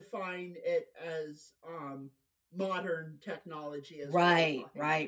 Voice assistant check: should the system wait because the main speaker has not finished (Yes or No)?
No